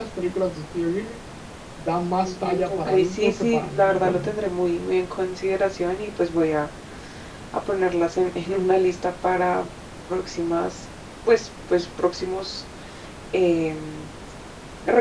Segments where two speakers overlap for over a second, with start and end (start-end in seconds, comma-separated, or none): 2.2-4.3